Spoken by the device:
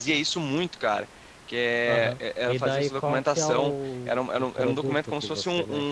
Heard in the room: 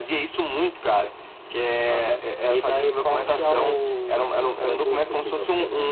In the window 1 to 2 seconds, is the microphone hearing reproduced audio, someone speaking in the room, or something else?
echo only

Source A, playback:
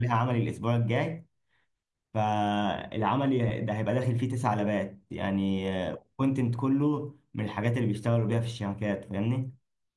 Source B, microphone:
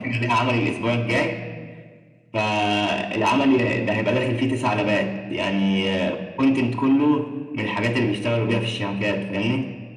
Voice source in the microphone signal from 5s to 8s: echo only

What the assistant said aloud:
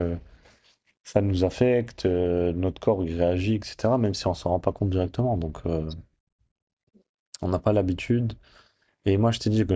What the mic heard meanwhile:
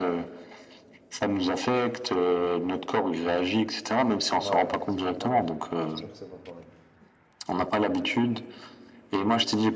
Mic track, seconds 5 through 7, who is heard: both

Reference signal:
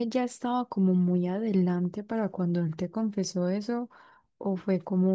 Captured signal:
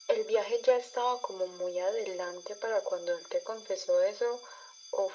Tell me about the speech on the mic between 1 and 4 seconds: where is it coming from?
echo only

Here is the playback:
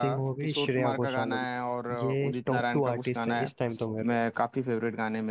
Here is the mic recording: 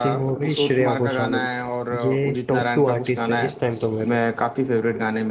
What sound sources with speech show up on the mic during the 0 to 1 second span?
echo only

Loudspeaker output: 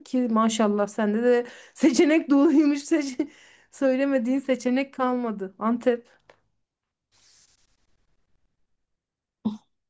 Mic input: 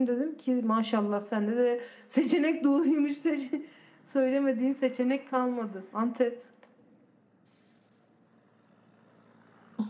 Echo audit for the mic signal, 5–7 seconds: echo only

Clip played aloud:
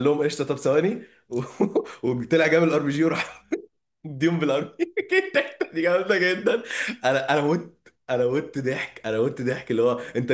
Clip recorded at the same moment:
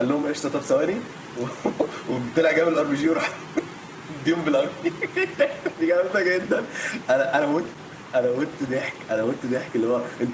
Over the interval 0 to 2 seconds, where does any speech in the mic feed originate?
echo only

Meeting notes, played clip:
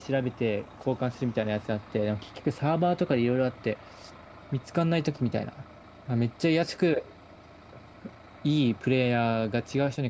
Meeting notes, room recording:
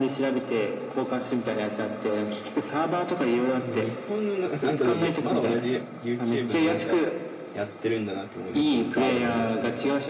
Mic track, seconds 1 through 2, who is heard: echo only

